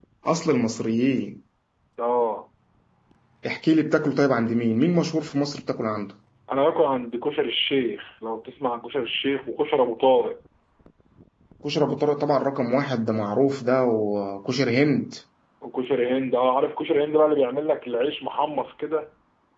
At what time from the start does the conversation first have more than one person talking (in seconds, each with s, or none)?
none